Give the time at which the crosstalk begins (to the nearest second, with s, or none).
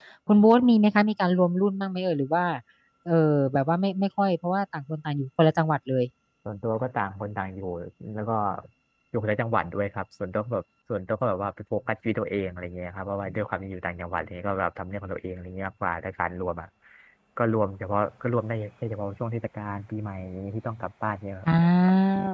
none